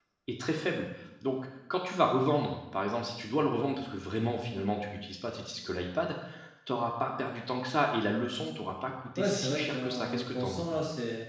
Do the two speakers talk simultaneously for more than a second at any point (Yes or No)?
Yes